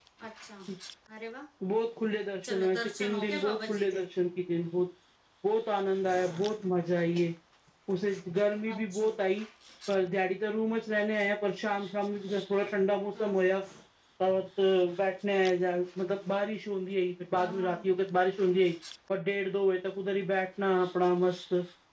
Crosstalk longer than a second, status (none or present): present